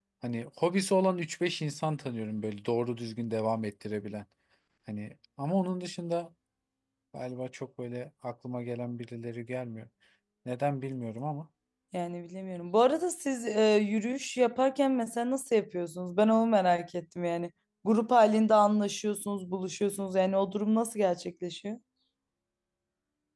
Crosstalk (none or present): none